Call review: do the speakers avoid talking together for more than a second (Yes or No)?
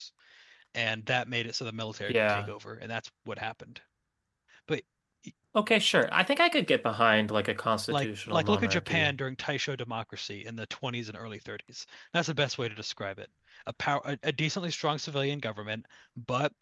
No